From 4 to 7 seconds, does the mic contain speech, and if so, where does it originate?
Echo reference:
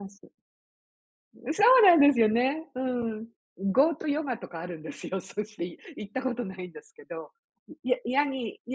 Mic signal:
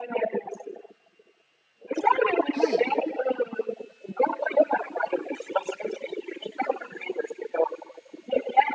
echo only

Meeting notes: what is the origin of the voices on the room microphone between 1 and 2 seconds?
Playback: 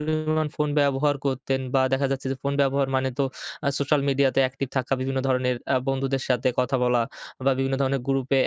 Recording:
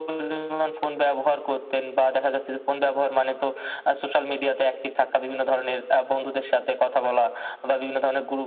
echo only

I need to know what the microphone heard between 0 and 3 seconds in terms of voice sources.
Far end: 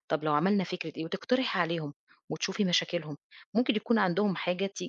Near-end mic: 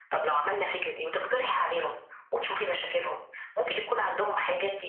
echo only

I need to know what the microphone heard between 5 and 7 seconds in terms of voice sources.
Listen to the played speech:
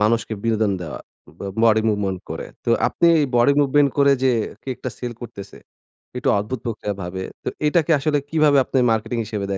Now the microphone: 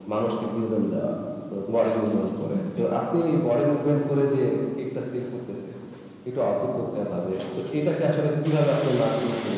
echo only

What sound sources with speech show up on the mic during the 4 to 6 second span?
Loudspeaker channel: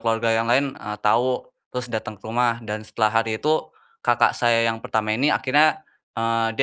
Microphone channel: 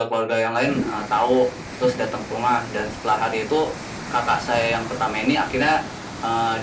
echo only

